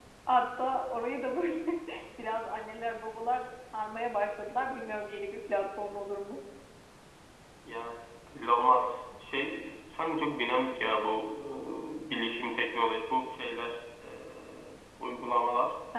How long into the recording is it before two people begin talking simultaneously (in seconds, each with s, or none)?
none